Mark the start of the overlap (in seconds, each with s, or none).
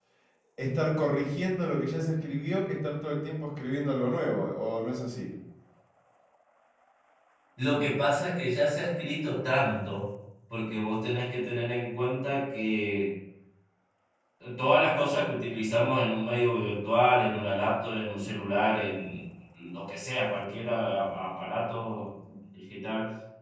none